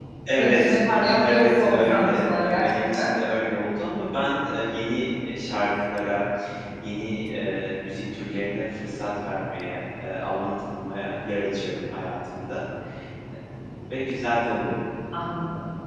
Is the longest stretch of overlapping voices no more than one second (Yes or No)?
No